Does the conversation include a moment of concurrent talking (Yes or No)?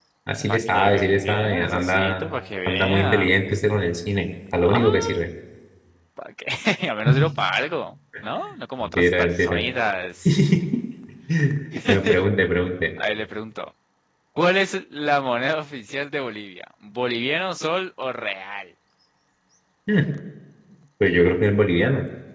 Yes